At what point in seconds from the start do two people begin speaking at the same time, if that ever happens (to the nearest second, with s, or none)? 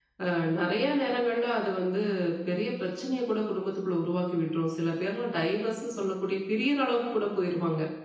none